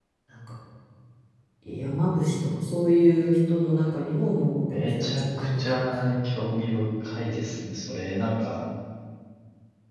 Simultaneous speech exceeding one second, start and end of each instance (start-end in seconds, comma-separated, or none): 4.7-6.1